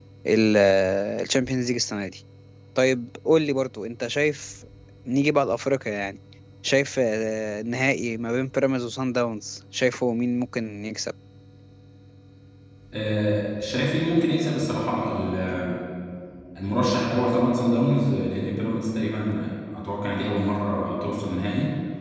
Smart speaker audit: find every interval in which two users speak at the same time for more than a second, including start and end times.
none

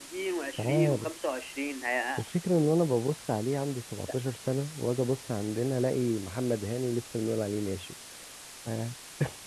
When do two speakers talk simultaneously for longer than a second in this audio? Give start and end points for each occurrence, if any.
none

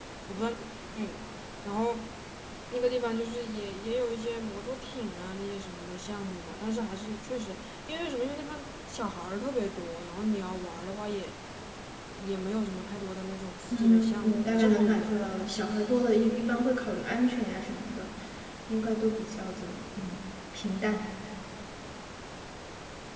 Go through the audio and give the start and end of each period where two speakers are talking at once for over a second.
13.7-15.6

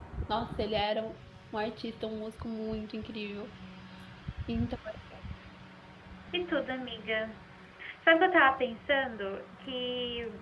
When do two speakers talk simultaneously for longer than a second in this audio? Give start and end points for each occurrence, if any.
none

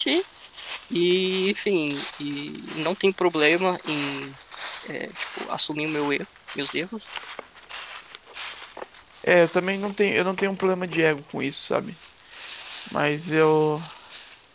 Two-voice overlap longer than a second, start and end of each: none

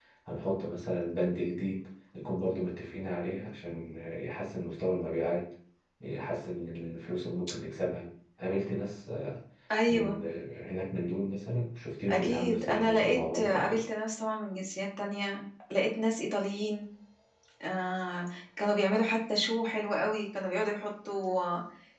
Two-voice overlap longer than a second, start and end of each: 12.1-13.8

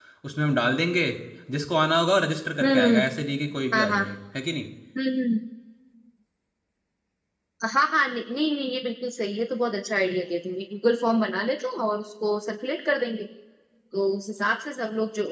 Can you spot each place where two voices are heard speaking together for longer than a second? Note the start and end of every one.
none

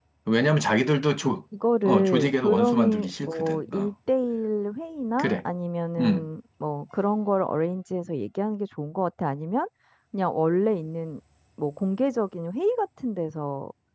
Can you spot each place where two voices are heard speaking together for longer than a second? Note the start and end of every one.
1.8-3.9

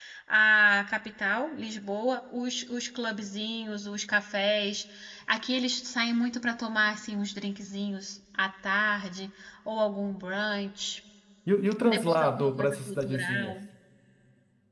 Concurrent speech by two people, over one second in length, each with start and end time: 11.8-13.6

